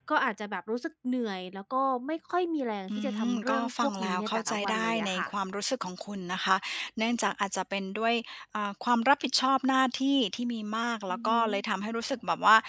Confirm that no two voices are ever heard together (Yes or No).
No